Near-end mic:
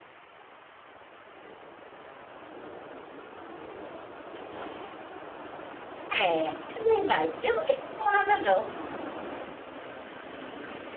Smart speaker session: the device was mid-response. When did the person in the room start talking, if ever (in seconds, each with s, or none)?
6.2 s